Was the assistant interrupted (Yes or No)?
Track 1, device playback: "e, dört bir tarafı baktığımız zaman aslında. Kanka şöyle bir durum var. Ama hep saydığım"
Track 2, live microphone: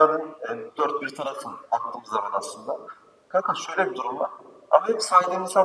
No